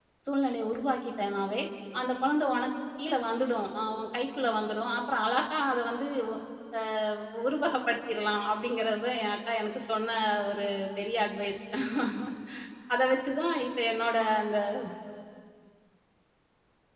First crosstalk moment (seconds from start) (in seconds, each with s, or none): none